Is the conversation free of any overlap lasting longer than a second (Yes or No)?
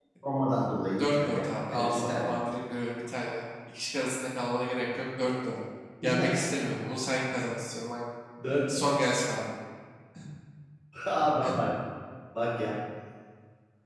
No